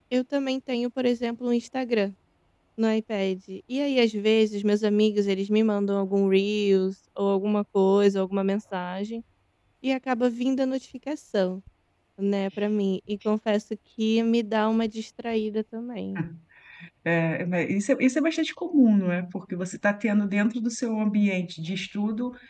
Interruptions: none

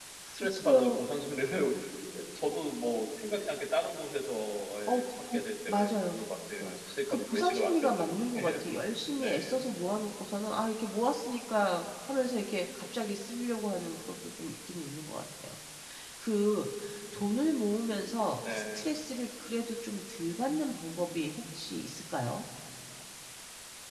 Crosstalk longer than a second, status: present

